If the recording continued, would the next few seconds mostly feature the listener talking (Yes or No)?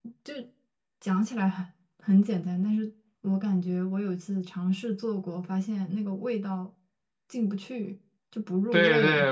Yes